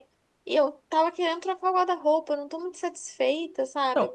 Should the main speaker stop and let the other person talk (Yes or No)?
Yes